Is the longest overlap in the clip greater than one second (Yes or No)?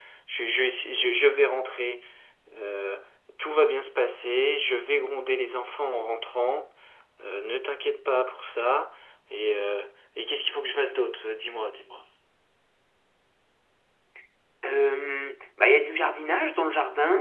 No